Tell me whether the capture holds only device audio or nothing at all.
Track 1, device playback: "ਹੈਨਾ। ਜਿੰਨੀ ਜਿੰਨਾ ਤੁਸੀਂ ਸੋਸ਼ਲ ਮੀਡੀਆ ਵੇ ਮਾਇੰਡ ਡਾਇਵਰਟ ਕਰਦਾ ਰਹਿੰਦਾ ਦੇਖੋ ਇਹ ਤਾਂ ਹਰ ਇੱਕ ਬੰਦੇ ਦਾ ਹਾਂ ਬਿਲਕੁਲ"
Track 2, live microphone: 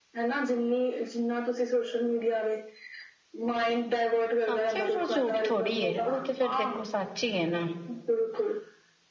No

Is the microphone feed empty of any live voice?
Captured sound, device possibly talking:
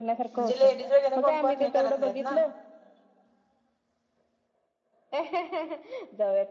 No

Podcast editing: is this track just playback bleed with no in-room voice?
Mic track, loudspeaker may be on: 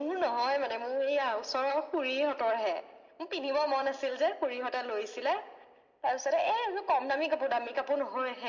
Yes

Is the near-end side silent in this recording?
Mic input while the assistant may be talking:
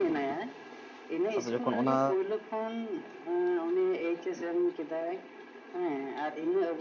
No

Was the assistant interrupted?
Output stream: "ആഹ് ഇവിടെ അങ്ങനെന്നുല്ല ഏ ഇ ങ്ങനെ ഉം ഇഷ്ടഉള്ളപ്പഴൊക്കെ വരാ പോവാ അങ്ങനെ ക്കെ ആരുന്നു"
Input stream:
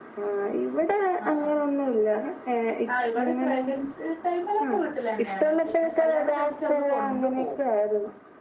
Yes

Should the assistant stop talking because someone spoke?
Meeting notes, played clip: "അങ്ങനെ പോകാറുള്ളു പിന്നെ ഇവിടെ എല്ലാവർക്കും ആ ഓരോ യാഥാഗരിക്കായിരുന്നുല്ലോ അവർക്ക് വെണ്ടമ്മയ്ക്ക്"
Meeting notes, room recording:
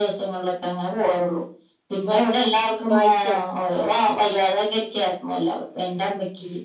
Yes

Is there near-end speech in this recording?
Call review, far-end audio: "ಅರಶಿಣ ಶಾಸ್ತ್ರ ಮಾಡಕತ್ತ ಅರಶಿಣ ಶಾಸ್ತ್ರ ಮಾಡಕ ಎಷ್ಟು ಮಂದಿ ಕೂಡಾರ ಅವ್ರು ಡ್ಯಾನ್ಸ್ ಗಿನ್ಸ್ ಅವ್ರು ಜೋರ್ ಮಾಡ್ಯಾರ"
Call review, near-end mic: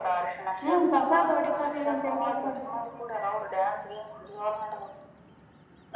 Yes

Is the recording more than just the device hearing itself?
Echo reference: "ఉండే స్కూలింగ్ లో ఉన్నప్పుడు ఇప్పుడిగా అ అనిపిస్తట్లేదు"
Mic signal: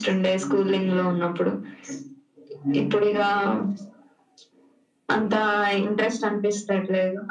No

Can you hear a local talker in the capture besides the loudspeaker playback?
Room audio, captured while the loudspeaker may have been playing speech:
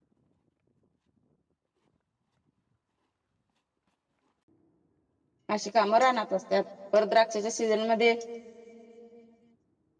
Yes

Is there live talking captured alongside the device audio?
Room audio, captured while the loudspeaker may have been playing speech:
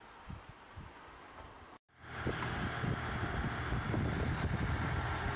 No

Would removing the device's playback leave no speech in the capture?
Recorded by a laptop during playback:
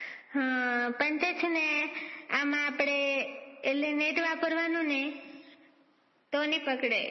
Yes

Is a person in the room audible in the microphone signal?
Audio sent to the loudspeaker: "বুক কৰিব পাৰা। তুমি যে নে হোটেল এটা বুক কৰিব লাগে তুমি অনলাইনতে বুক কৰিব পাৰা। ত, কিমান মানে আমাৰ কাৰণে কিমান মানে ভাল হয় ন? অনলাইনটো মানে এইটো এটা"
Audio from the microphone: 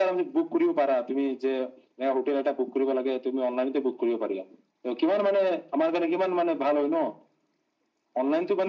No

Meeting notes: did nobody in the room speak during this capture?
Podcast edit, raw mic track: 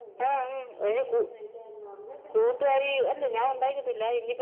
No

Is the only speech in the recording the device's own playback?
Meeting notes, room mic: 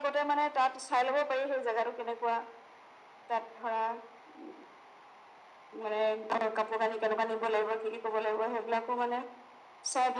Yes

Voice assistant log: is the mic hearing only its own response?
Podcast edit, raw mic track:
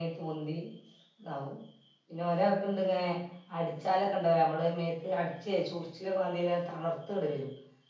Yes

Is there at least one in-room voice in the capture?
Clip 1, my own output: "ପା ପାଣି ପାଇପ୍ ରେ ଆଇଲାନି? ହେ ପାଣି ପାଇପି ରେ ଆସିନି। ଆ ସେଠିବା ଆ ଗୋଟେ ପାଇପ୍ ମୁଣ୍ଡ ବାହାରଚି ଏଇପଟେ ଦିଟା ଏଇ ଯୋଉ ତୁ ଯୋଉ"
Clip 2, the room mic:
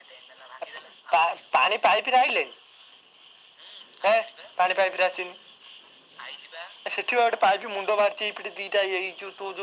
No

